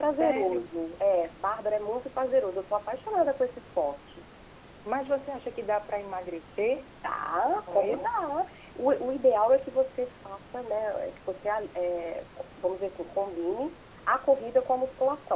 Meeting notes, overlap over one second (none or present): none